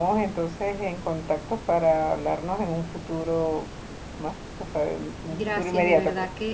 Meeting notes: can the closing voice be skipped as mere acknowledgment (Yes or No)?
No